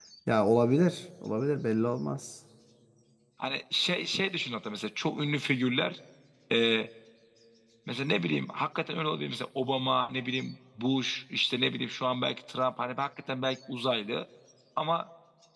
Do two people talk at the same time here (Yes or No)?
No